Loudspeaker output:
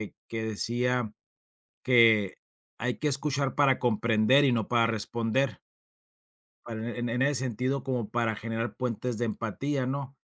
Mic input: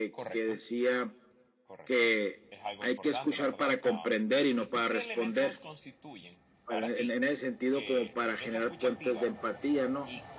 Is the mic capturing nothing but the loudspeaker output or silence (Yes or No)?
No